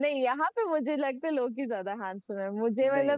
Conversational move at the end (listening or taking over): listening